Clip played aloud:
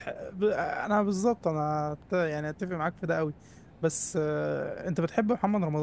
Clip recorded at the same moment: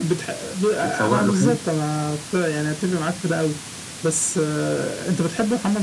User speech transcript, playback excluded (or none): اتسوق له حلو